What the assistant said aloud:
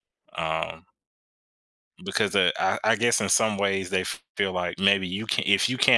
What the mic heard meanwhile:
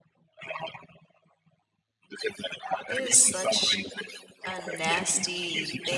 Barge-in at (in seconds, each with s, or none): 2.9 s